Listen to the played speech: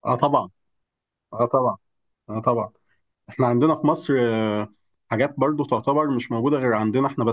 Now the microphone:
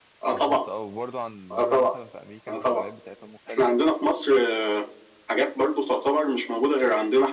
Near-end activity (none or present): present